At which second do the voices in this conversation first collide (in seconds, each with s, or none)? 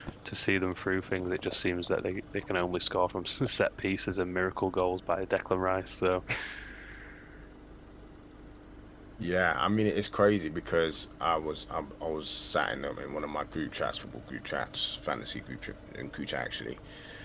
none